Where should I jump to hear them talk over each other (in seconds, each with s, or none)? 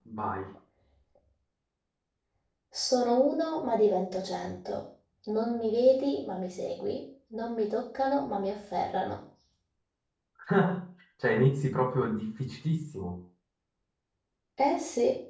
none